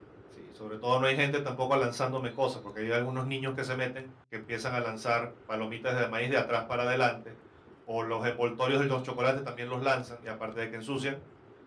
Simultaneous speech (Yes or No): No